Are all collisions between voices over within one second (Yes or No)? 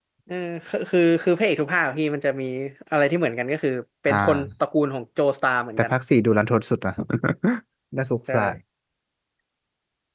Yes